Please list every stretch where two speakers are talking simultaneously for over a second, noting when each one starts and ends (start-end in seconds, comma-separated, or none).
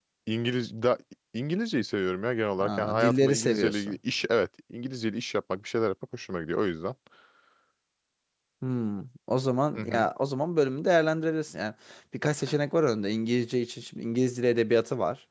2.6-4.0